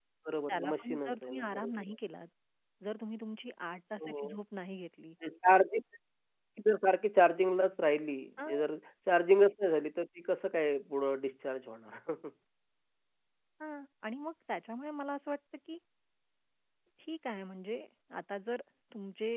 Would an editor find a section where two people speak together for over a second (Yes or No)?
Yes